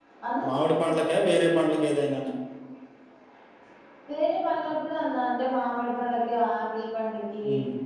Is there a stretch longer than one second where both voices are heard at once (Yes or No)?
No